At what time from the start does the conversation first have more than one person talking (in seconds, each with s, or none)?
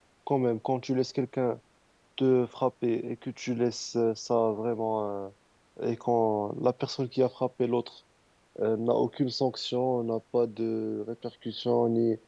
none